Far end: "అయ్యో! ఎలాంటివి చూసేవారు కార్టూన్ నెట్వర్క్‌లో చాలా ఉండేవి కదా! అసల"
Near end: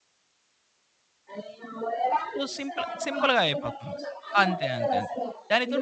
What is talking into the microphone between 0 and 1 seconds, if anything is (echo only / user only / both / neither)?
neither